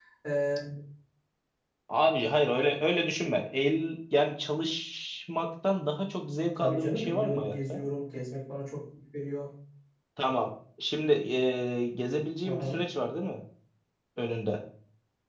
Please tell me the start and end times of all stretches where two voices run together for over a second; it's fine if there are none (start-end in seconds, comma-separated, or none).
6.6-7.8